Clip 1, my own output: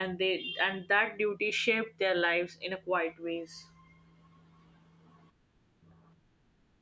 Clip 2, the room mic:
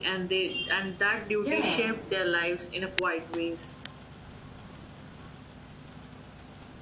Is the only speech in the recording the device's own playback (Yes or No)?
No